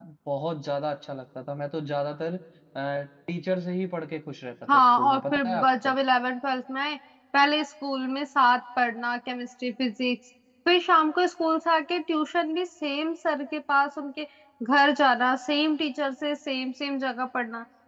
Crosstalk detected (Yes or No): Yes